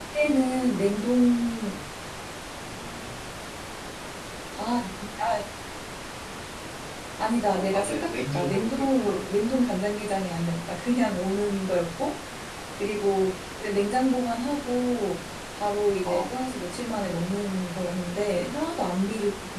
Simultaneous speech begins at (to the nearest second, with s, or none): 7 s